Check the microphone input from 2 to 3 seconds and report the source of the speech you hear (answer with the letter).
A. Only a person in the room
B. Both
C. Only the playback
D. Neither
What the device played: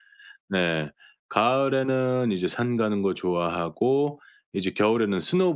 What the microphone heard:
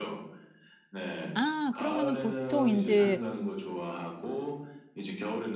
B